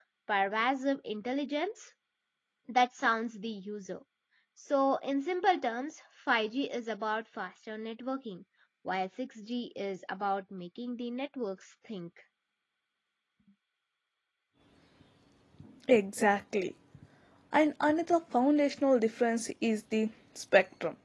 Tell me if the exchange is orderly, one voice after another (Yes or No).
Yes